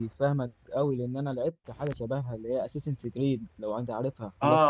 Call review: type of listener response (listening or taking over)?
taking over